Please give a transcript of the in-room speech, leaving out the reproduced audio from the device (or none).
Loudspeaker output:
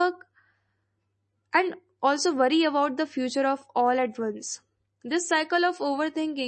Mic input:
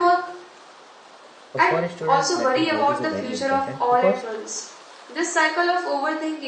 Uh, for students mental health is a very important because